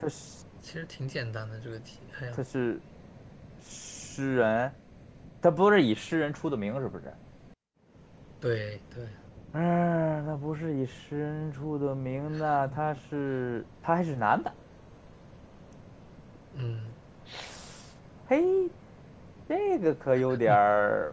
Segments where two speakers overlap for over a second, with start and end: none

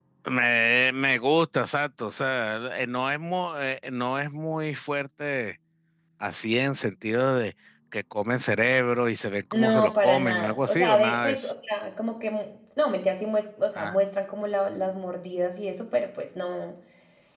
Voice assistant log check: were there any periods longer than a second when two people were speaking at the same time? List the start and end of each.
9.5-11.5

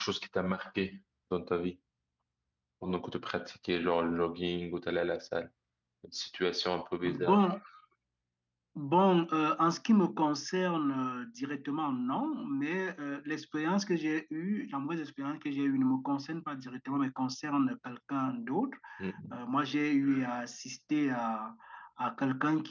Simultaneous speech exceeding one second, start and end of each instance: none

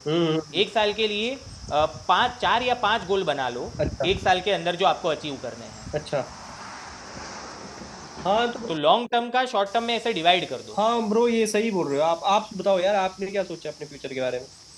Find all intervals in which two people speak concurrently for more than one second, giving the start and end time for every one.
none

